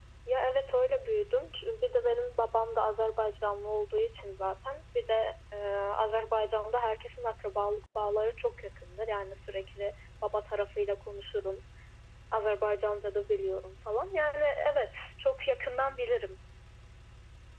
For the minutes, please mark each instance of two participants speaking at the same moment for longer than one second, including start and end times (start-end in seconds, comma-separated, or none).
none